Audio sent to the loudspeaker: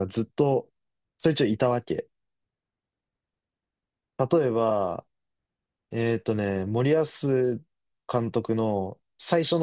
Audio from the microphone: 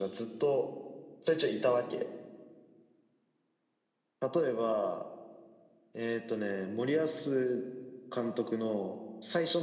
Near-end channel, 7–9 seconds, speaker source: echo only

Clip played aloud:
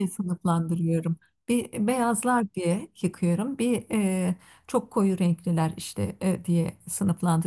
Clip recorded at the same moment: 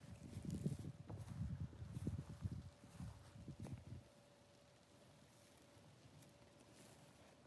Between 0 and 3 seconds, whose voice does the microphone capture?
neither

